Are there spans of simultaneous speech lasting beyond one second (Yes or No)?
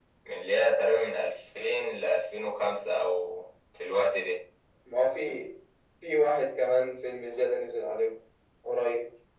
No